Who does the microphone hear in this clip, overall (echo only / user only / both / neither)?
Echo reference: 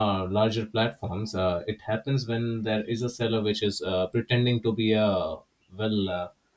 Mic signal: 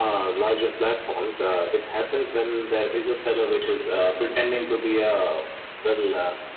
echo only